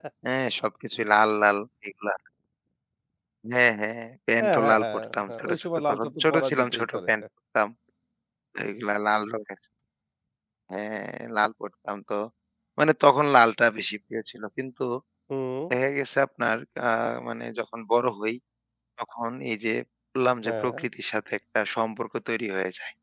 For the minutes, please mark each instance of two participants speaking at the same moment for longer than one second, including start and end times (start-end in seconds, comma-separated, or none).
4.4-7.1